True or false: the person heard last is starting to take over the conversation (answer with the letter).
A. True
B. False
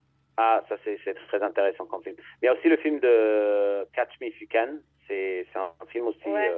A